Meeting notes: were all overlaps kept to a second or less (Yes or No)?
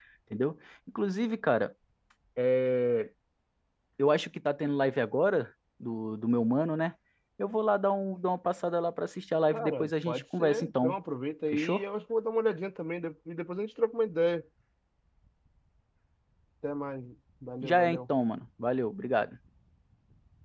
No